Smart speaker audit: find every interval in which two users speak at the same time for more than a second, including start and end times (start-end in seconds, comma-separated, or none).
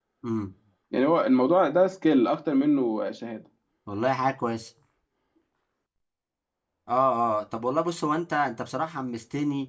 none